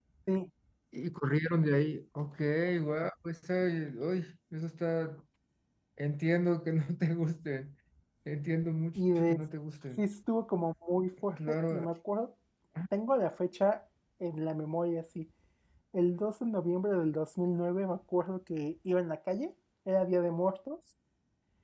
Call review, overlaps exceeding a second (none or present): none